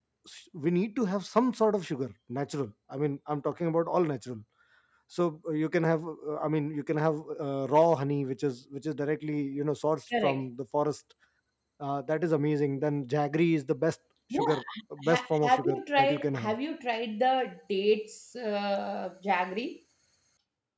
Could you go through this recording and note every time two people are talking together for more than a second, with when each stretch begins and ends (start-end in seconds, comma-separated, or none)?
15.1-16.5